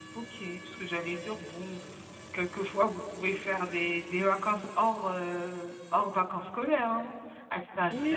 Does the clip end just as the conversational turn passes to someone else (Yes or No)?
Yes